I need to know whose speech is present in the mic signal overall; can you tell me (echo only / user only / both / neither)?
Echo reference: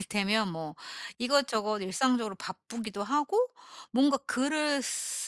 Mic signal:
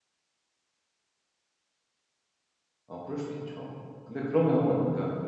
user only